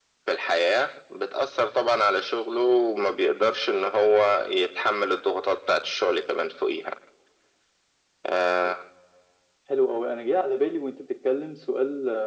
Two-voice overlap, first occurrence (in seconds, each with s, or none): none